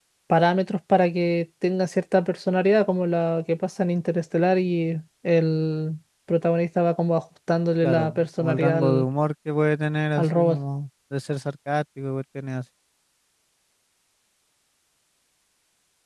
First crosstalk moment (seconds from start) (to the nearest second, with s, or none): 8 s